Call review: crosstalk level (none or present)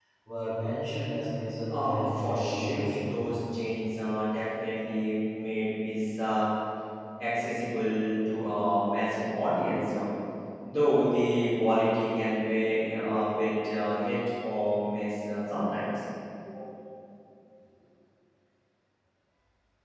present